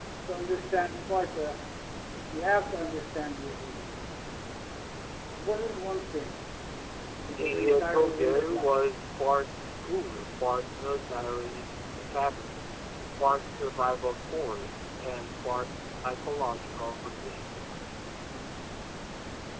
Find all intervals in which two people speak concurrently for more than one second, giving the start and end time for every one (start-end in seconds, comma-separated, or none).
7.4-8.8